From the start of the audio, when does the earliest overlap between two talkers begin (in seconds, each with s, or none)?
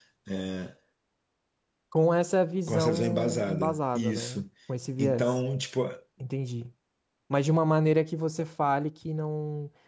2.7 s